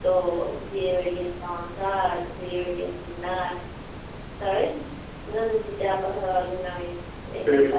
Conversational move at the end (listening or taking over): listening